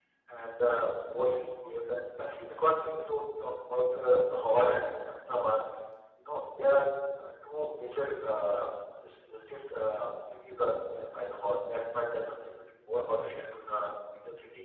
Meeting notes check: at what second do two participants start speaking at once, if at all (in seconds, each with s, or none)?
none